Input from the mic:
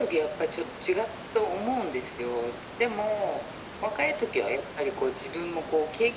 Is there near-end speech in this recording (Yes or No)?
No